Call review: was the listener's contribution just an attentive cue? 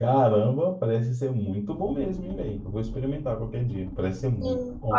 No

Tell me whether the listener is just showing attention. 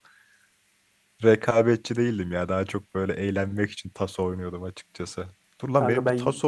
Yes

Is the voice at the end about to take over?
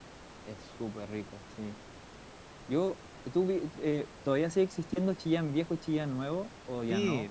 Yes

